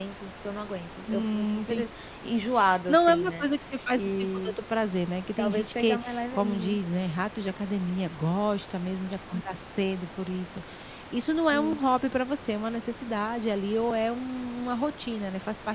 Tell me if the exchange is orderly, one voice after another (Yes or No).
No